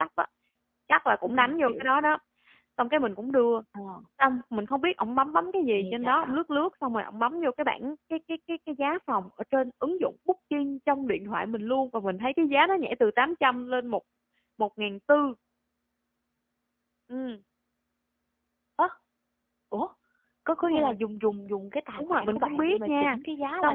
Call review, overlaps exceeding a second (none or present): present